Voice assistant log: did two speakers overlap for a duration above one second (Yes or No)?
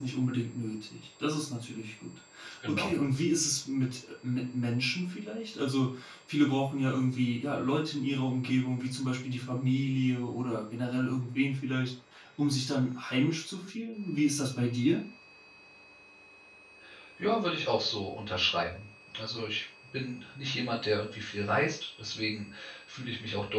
No